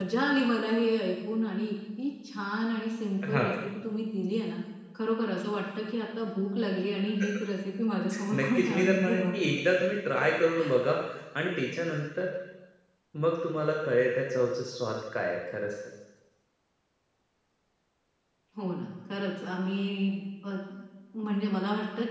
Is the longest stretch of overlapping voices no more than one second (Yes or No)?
No